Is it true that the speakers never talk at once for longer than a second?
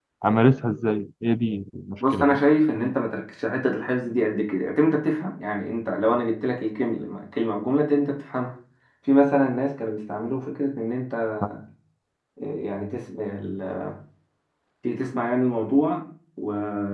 Yes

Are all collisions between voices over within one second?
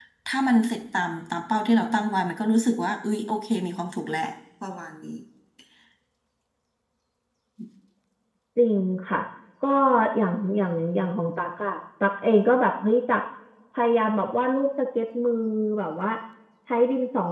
Yes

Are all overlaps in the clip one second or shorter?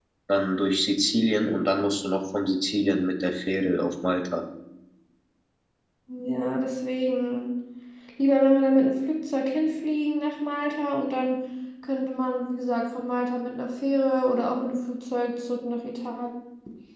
Yes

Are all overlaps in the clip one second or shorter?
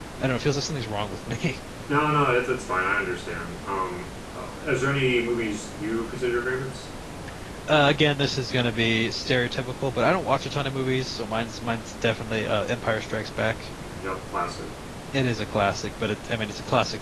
Yes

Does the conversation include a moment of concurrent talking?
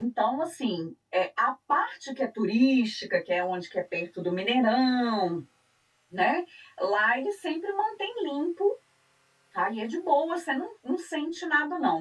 No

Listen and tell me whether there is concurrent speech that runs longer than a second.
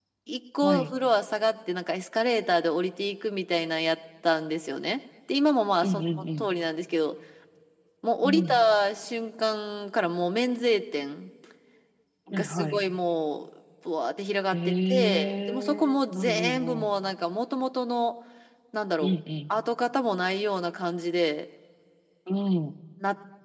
Yes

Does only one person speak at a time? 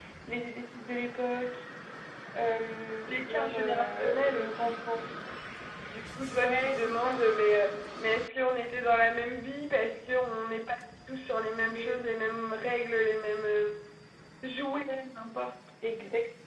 No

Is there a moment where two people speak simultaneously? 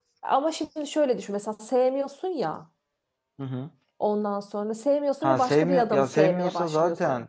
Yes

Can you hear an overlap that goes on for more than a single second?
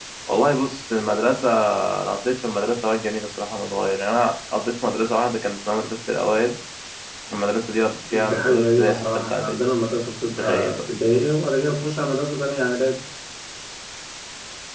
Yes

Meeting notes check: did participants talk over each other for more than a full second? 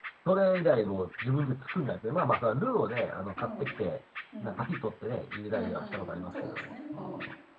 Yes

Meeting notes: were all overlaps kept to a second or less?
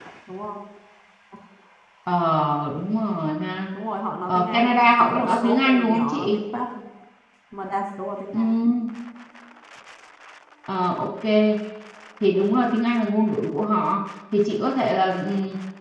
No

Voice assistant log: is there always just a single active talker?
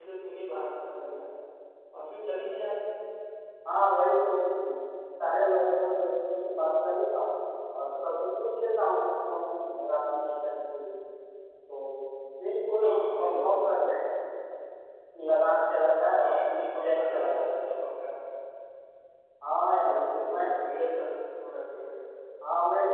No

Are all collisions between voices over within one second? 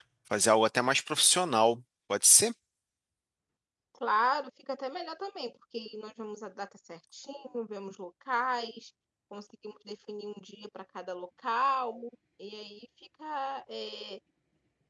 Yes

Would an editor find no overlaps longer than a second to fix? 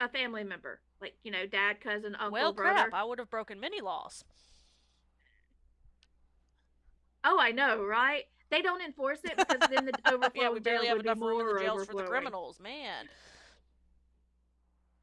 No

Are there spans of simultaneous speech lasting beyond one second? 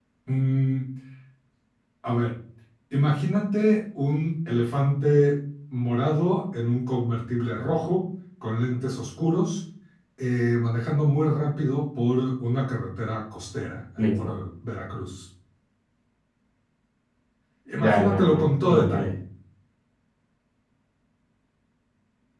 Yes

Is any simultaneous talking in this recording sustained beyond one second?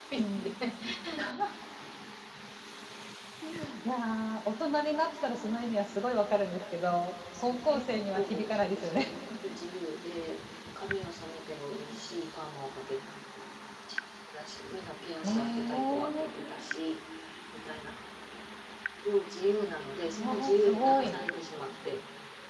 Yes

